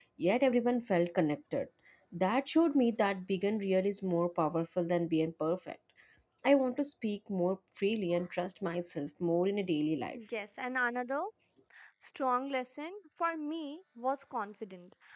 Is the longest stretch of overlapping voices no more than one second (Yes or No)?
Yes